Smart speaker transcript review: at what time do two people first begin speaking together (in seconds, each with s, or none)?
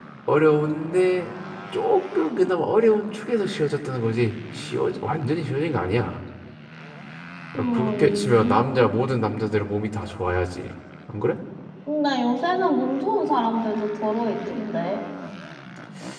7.6 s